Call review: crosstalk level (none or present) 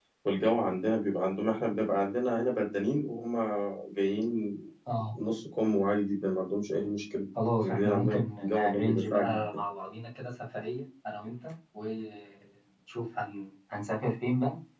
present